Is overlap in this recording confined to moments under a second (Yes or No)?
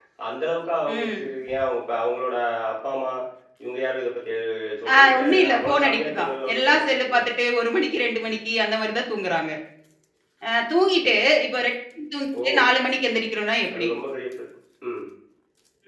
No